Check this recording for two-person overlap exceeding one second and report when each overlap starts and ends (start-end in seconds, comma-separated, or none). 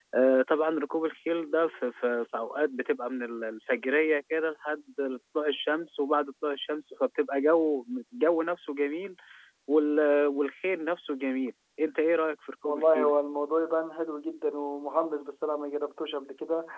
none